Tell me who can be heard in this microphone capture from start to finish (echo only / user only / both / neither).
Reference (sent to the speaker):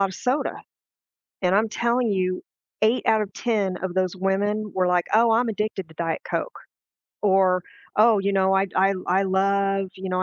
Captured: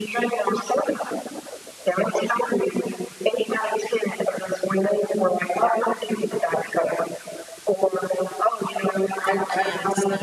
both